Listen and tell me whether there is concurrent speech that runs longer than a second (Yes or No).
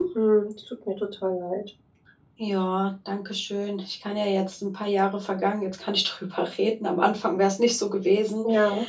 No